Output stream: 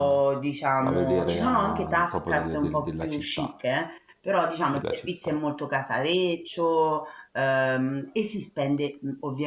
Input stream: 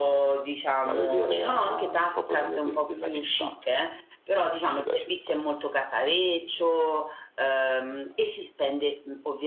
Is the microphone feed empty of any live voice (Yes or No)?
Yes